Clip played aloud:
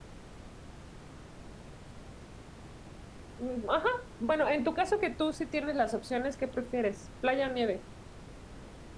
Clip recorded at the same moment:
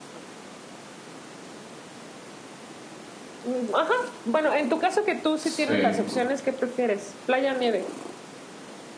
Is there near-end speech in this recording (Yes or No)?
Yes